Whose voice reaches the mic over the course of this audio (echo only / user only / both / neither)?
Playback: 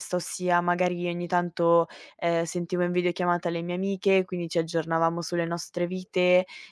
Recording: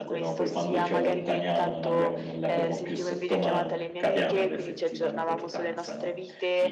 both